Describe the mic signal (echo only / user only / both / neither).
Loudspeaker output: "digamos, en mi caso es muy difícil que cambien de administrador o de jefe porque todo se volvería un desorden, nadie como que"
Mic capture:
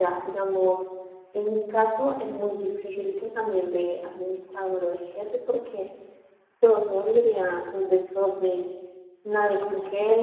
echo only